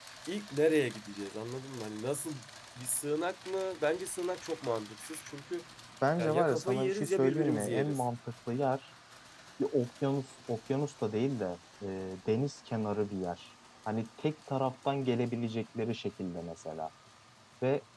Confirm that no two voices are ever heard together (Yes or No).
No